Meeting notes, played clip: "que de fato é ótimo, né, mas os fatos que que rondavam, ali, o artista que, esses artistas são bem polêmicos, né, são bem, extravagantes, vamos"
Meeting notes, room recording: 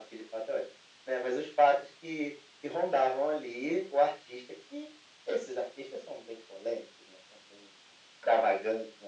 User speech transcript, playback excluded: none

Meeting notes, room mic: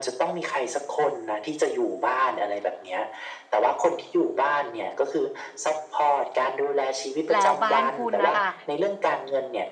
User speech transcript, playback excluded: แล้วบ้านคุณน่ะค่ะ

